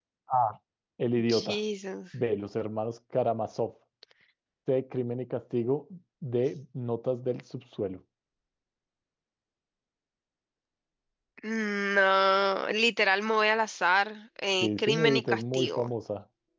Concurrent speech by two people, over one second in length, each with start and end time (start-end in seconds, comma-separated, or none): 14.6-15.9